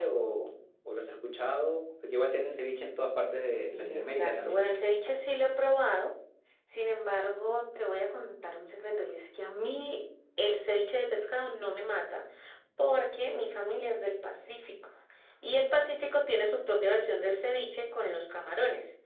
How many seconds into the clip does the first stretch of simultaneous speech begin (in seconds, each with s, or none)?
3.4 s